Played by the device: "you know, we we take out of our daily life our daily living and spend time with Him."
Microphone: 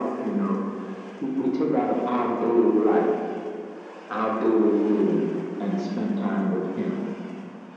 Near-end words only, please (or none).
none